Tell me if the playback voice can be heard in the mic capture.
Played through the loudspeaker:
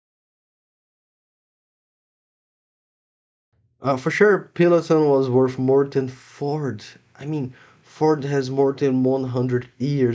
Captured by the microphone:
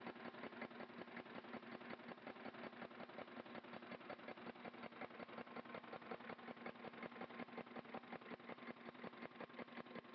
No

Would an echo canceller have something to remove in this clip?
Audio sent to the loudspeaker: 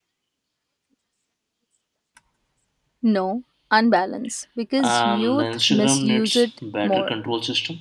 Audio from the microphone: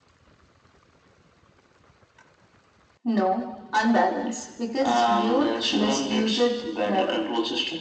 Yes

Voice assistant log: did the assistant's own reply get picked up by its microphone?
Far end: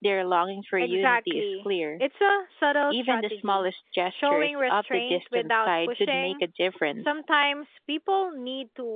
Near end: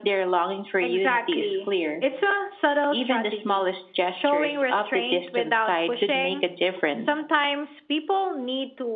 Yes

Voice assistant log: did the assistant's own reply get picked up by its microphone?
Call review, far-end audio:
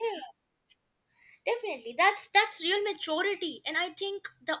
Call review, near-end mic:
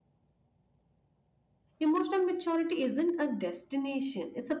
No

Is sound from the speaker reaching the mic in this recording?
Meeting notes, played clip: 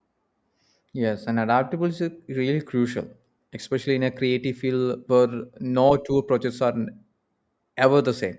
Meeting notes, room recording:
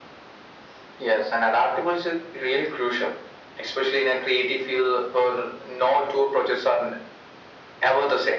Yes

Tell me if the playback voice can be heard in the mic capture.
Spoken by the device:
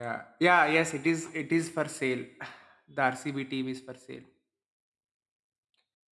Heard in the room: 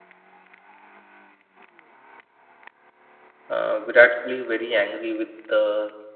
No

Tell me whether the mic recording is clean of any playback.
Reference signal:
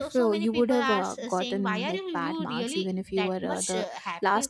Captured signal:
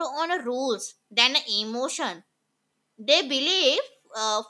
Yes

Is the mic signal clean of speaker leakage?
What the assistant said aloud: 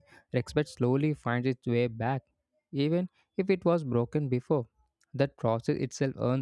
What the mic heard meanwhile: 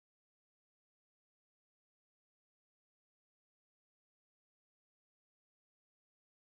Yes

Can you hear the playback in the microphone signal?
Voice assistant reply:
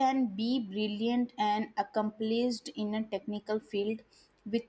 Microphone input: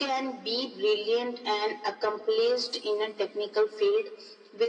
Yes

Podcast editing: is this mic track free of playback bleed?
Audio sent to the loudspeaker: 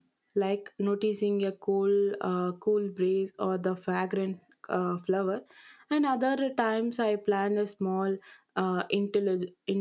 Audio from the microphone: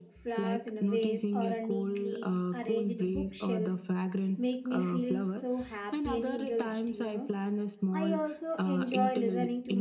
No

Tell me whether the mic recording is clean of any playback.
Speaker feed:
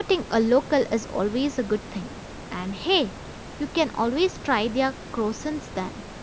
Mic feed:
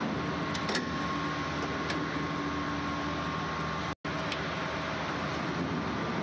Yes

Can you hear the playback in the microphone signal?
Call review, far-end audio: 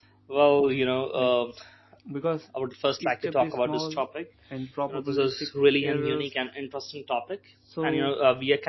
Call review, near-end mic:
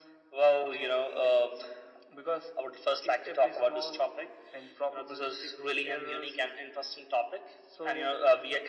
Yes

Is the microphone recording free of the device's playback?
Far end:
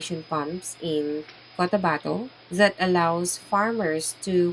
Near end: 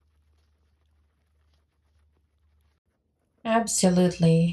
Yes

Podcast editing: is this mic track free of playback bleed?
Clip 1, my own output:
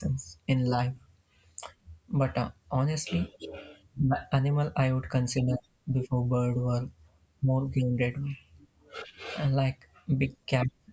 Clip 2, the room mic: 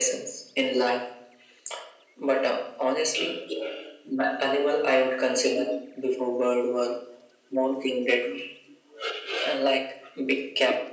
No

